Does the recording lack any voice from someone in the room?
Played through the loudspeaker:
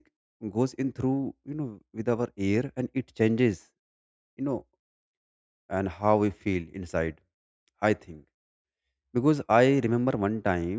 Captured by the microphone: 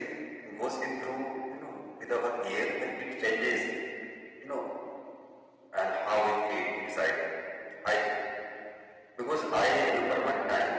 Yes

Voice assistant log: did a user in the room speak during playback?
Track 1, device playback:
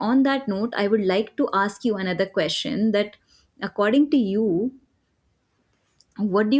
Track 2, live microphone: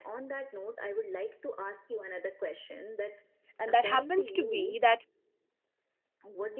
Yes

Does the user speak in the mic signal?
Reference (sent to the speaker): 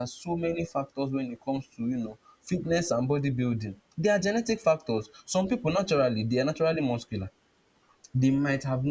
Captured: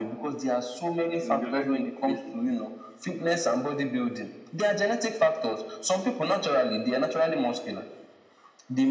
Yes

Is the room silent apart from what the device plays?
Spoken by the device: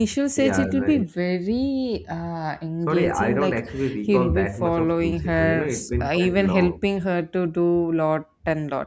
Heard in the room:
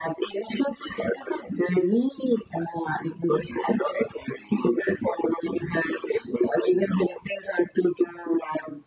Yes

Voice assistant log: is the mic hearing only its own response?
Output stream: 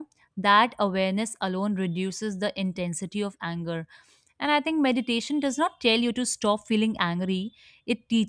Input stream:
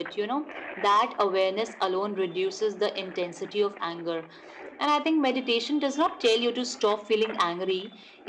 Yes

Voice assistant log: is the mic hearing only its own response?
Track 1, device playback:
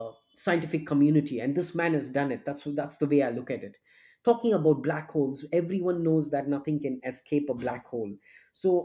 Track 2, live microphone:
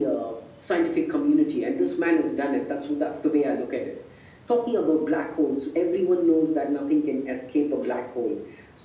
Yes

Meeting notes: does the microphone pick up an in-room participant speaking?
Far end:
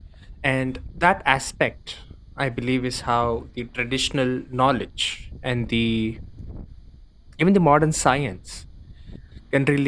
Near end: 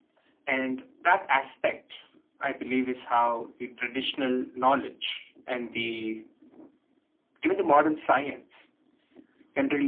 No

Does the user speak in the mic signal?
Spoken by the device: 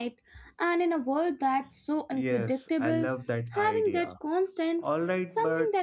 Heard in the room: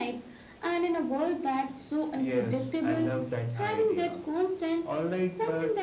No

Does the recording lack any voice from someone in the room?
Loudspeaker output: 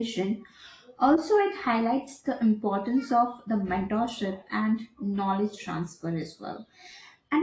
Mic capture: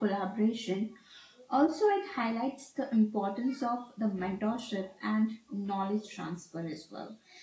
Yes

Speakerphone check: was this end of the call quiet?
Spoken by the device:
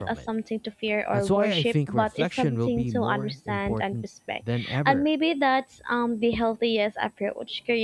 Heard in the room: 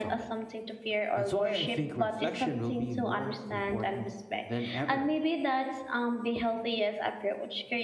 Yes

